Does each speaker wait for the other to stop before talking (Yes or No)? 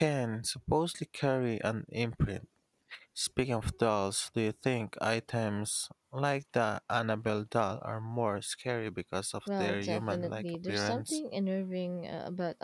No